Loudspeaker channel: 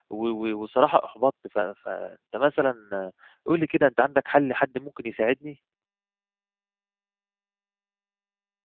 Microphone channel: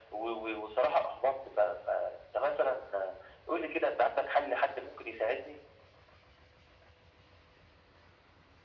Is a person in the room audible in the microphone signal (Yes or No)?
No